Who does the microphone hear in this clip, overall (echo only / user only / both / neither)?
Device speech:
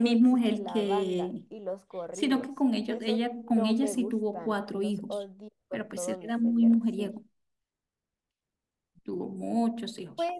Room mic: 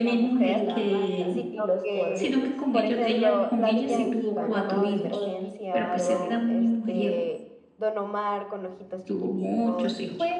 both